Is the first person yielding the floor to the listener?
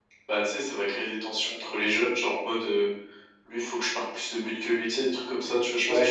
Yes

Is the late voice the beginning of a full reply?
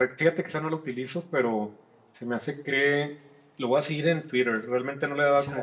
No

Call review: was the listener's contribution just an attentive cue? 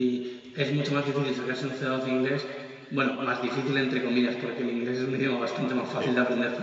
Yes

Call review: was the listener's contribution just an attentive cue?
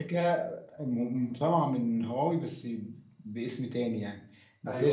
Yes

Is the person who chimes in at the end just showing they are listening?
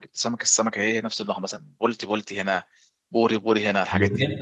No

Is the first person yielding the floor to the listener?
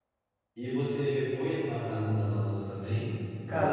Yes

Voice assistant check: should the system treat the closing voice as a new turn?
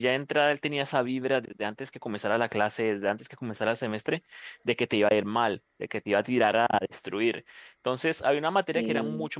No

